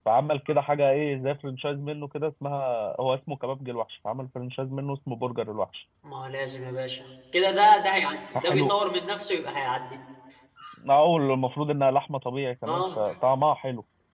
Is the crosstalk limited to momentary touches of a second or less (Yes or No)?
Yes